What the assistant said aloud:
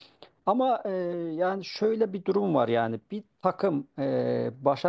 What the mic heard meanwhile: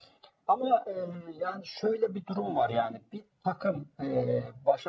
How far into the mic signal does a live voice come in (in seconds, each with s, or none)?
none